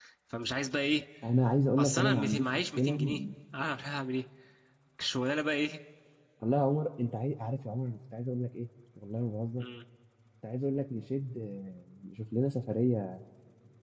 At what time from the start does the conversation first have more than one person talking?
1.8 s

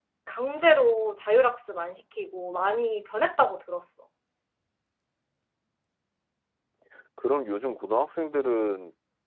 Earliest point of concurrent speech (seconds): none

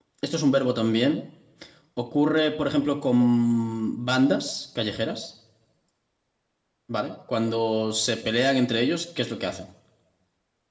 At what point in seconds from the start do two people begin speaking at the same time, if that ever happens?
none

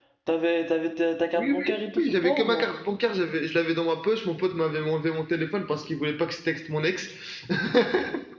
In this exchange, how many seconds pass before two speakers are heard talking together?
1.4 s

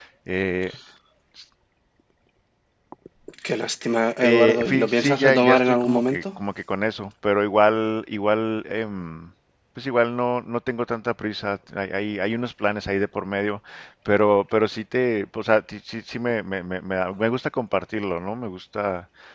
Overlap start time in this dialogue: 4.2 s

